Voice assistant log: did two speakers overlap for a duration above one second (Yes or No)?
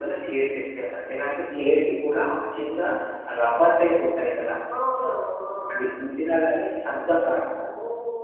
No